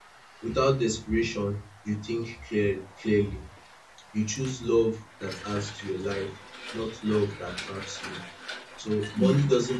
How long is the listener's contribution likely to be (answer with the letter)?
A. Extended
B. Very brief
B